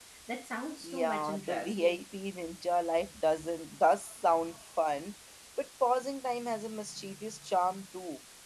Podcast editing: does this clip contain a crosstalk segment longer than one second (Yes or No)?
Yes